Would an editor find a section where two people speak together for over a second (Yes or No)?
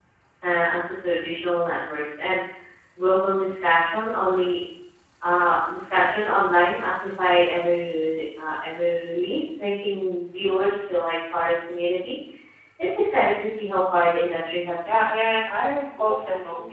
No